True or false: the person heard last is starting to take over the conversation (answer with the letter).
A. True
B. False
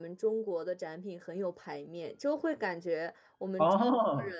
B